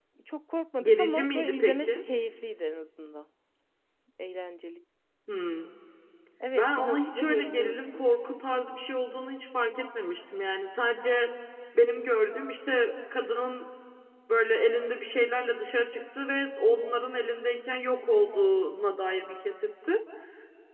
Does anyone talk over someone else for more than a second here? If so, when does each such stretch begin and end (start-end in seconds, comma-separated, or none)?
0.8-2.0, 6.6-8.1